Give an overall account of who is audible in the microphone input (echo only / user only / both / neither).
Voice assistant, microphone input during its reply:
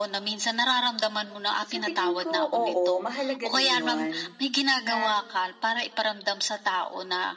both